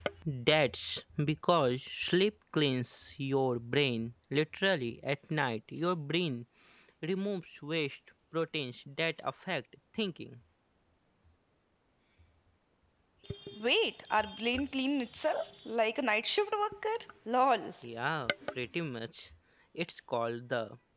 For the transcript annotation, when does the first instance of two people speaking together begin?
none

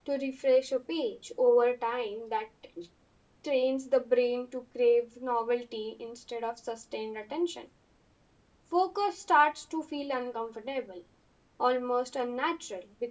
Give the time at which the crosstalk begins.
none

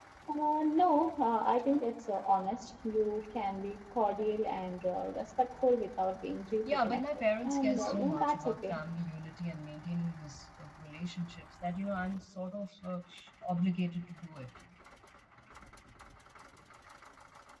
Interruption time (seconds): 6.6 s

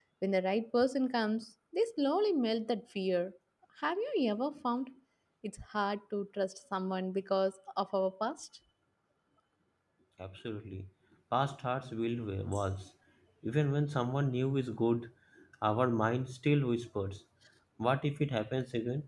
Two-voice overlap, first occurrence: none

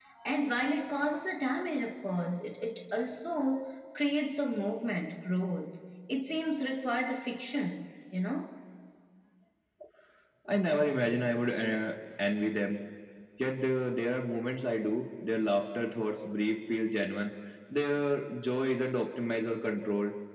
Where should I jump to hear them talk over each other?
none

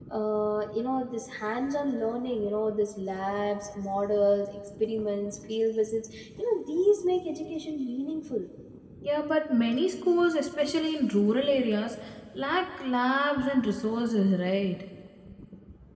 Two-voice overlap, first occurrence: none

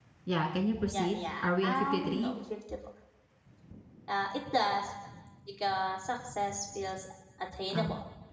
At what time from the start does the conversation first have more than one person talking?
0.9 s

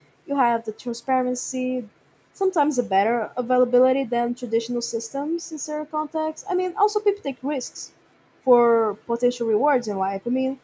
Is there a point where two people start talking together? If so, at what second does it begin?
none

